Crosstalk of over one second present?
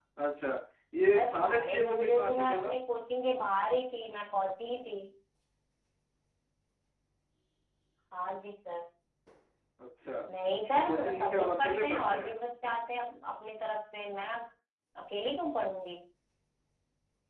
Yes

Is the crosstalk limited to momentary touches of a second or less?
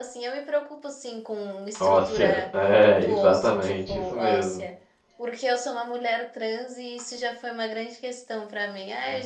No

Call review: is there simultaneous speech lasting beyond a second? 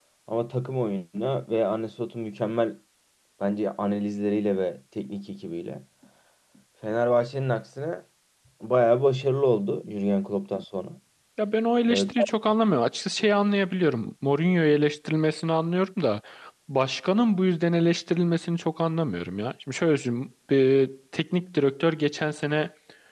No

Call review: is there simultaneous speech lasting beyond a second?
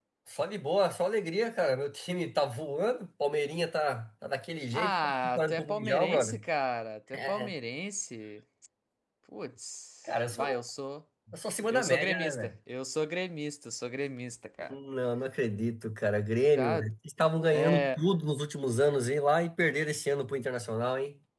Yes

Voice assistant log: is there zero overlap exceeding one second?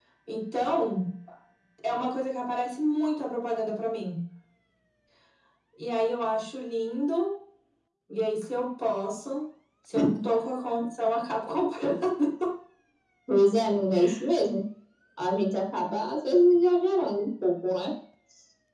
Yes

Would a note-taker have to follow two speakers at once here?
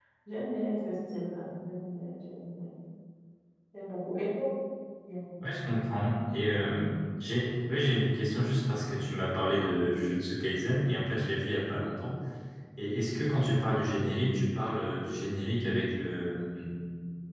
No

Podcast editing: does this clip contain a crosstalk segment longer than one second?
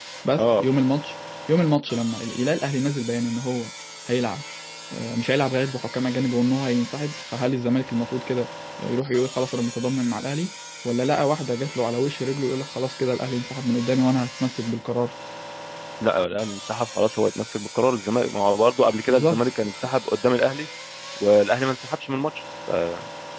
No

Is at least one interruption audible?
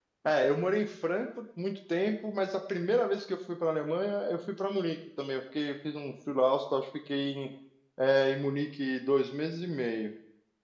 No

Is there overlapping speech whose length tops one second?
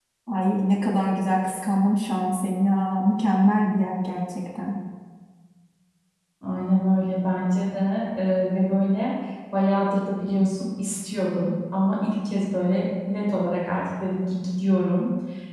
No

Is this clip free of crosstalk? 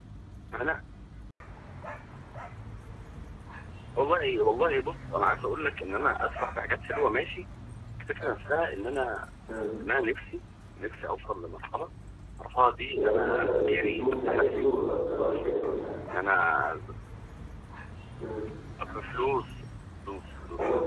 No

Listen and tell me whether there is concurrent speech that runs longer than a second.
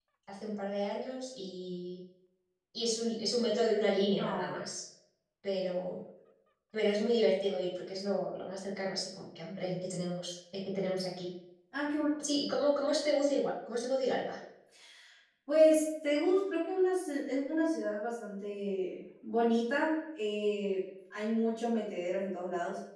No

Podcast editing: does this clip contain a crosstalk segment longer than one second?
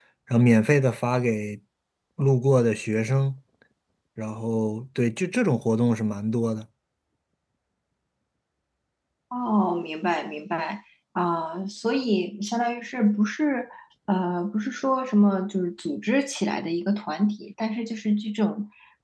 No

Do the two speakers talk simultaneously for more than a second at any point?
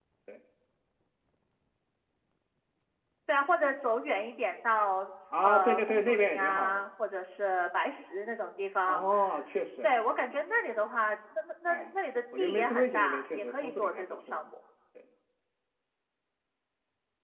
Yes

